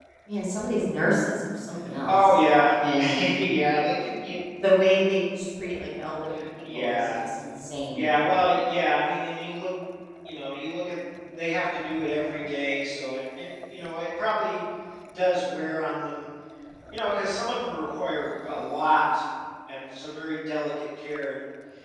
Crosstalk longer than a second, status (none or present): none